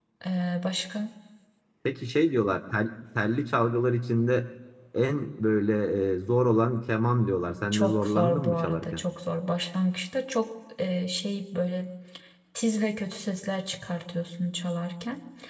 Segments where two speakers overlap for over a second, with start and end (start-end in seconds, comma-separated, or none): 7.7-9.0